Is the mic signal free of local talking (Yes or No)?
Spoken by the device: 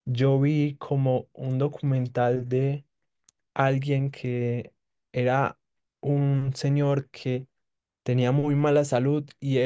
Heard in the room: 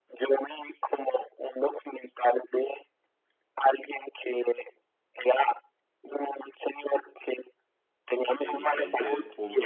No